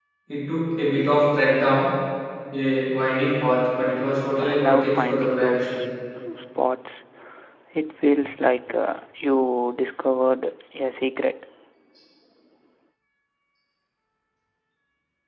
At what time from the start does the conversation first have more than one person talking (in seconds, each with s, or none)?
4.4 s